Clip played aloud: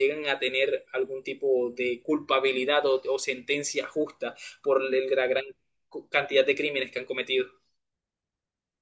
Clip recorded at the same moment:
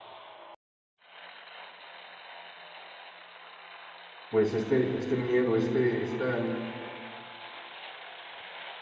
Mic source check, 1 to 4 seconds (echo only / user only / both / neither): neither